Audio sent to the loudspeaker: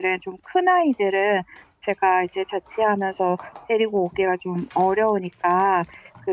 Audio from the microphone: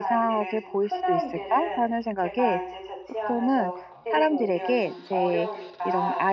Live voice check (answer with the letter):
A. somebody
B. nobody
A